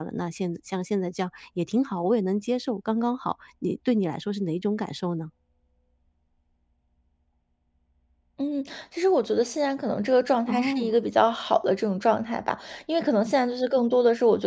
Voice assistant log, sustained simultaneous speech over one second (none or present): none